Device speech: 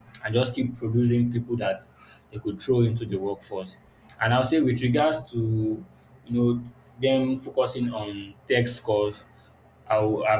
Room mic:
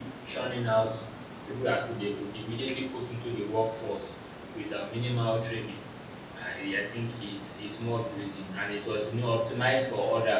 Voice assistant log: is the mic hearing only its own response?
No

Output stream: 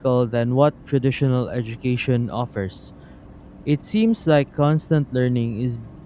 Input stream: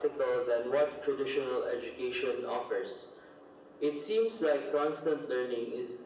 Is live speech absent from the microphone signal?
Yes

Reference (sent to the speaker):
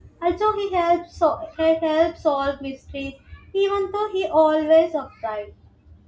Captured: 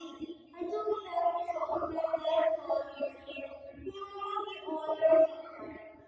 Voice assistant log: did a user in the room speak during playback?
No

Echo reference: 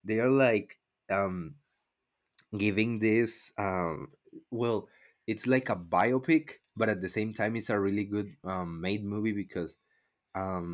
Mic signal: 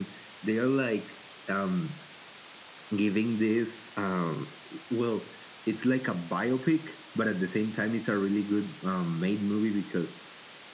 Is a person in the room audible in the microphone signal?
No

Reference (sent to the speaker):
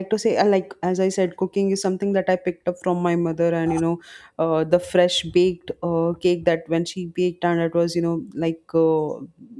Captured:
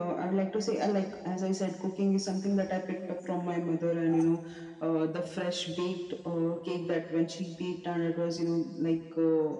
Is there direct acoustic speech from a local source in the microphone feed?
No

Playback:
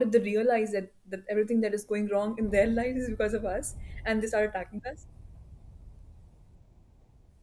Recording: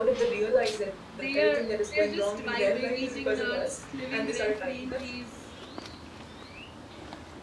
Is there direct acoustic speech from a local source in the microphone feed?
Yes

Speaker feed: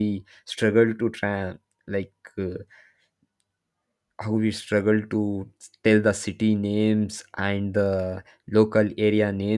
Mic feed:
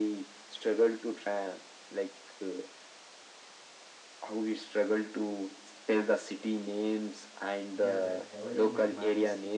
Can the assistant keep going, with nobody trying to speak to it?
No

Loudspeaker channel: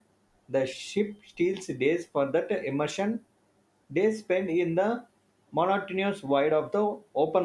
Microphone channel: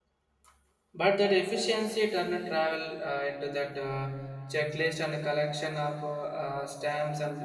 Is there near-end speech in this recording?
Yes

